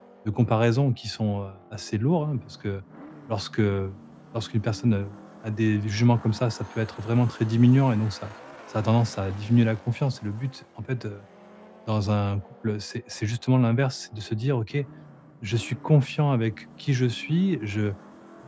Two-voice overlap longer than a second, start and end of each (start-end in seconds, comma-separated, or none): none